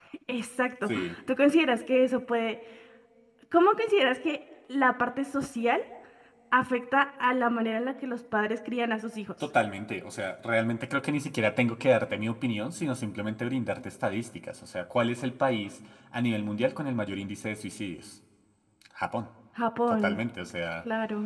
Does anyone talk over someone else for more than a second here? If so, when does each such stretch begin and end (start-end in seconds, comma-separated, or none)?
none